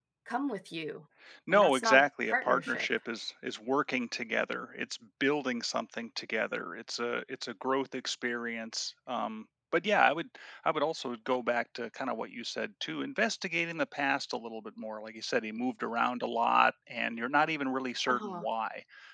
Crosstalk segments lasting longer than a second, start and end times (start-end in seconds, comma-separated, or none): 1.5-2.9